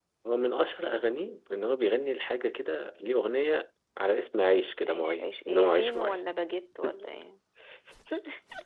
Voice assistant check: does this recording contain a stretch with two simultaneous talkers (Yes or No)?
Yes